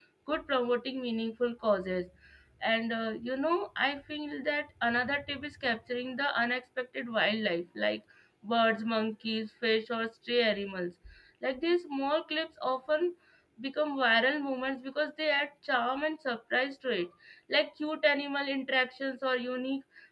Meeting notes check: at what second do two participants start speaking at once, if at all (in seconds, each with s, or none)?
none